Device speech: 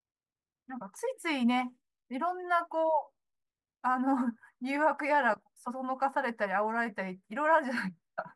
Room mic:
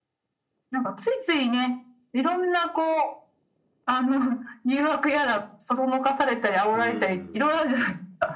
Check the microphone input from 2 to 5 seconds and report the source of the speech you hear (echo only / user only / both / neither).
echo only